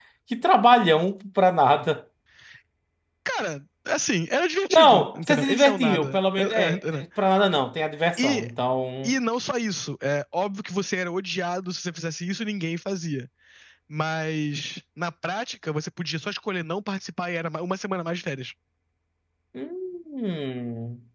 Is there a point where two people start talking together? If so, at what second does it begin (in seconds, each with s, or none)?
4.7 s